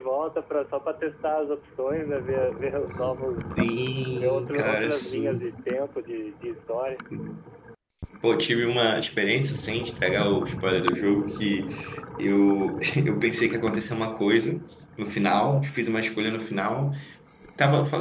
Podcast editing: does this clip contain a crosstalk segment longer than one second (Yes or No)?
Yes